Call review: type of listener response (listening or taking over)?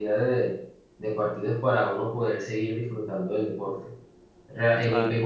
listening